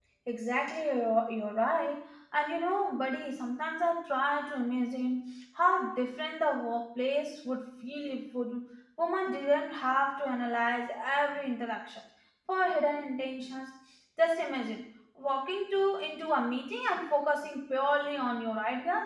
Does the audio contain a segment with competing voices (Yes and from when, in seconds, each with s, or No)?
No